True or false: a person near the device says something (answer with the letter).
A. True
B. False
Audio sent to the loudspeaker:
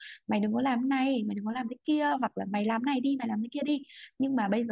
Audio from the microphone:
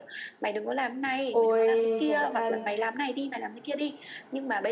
A